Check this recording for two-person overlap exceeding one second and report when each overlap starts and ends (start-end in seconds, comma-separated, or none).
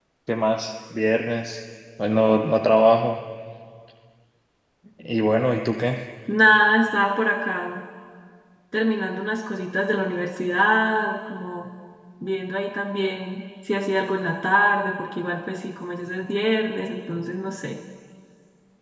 none